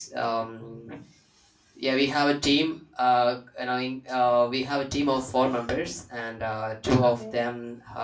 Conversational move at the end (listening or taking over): listening